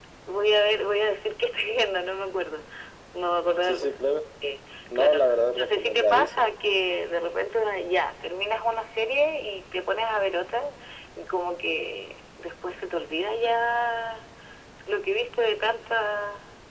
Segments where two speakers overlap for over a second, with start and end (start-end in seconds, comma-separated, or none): 5.0-6.5